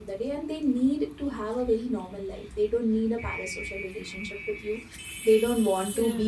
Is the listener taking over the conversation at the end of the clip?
No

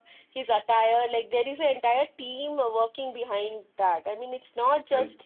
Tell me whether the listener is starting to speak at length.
No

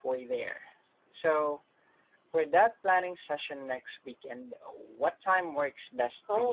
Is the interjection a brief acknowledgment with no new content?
No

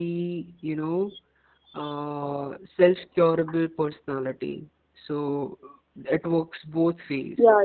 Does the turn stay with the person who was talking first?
Yes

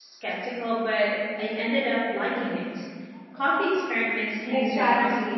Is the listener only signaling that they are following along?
No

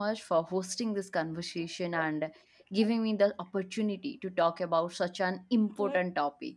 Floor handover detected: No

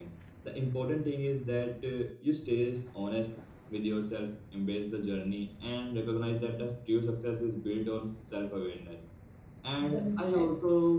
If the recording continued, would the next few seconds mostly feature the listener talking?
No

